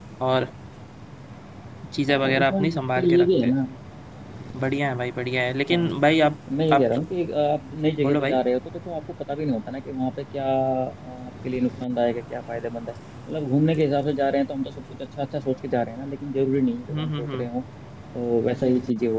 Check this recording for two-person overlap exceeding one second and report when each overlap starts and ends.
2.1-3.5

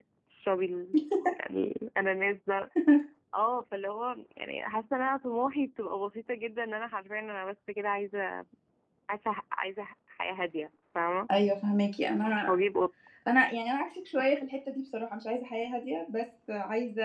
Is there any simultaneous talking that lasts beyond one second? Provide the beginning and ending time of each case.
none

